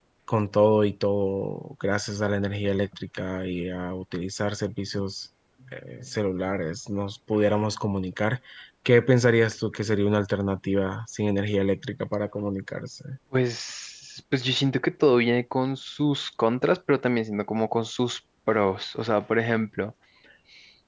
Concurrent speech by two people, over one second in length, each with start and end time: none

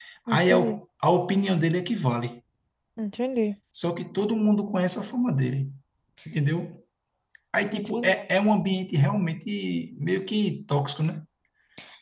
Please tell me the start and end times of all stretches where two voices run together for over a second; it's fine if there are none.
none

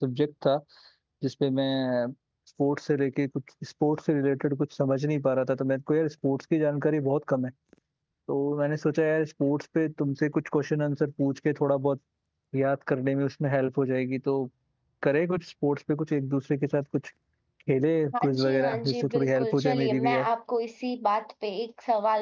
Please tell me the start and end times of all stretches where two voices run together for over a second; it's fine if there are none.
18.2-20.3

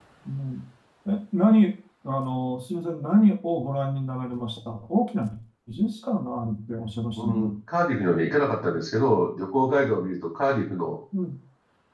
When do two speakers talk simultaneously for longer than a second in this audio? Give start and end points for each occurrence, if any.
none

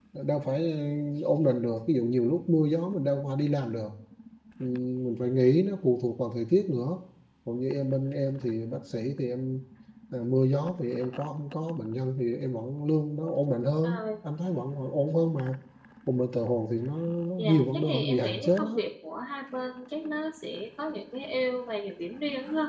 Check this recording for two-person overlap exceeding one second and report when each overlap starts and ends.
17.4-18.8

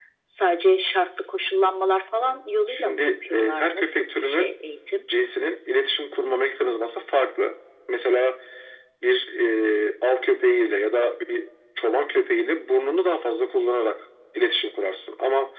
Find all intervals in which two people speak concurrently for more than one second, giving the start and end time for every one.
2.7-4.6

